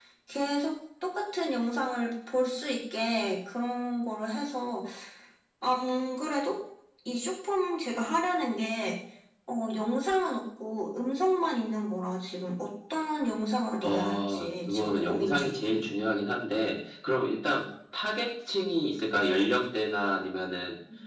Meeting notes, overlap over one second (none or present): present